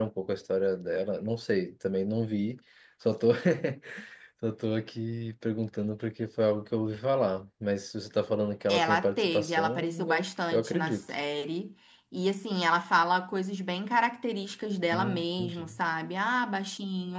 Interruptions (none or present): present